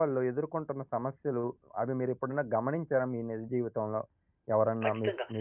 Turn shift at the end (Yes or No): Yes